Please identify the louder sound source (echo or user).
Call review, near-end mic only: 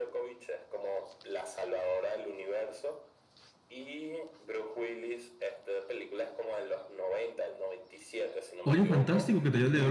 user